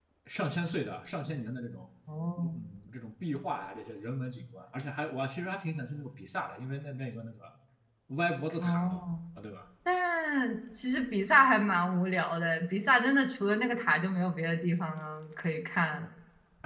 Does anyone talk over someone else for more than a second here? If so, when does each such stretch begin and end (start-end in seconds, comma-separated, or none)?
none